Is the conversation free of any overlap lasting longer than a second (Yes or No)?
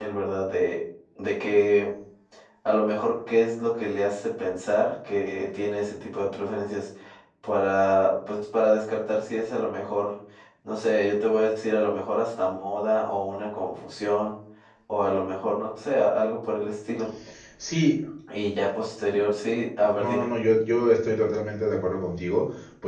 Yes